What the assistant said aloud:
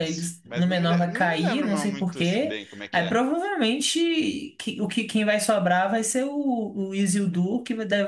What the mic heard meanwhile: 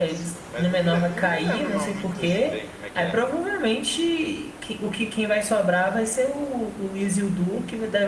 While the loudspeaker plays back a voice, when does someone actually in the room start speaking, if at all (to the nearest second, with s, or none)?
none